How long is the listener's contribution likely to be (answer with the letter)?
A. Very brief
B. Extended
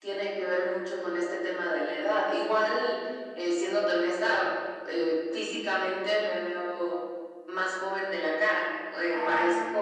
A